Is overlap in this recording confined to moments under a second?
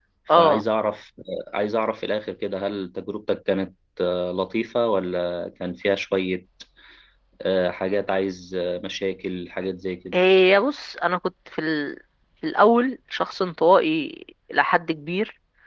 Yes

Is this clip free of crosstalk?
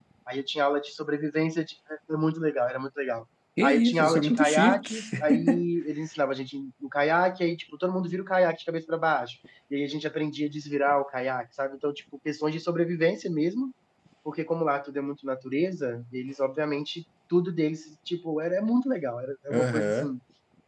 No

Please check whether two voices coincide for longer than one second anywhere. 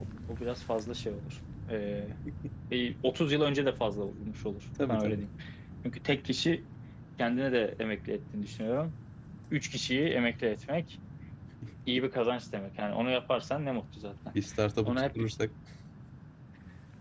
No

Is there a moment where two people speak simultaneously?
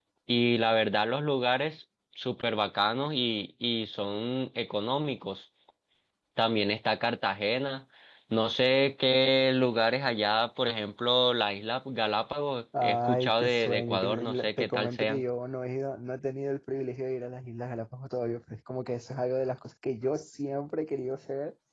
Yes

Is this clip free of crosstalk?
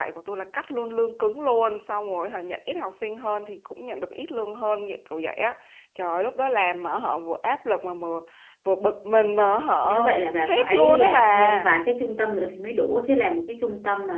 No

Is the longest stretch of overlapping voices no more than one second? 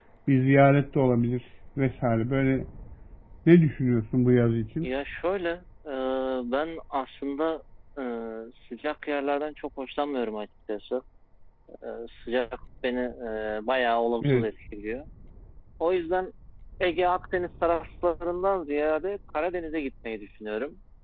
Yes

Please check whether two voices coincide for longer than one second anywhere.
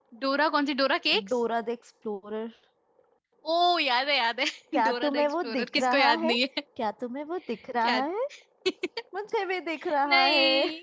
Yes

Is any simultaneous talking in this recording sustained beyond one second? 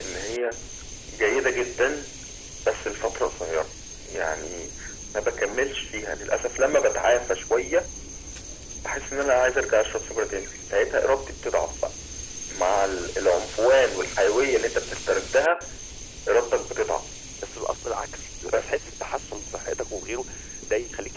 No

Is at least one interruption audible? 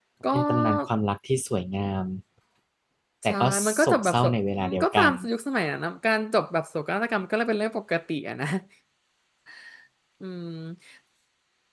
Yes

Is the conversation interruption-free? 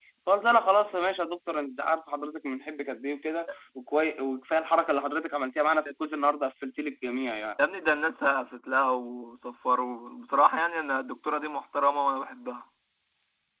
Yes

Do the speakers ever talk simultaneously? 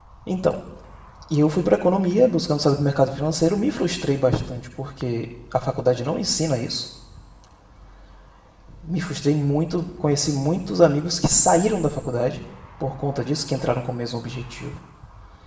No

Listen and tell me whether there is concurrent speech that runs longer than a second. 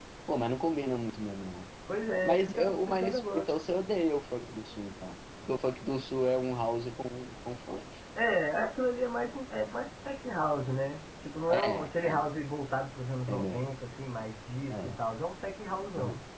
Yes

